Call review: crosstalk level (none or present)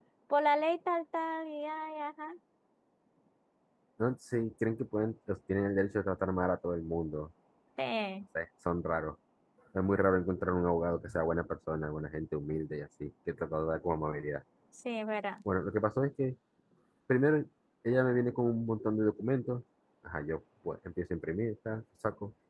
none